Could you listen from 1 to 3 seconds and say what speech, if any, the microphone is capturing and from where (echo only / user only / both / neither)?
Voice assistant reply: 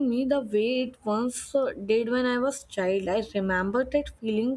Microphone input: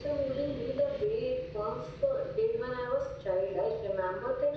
echo only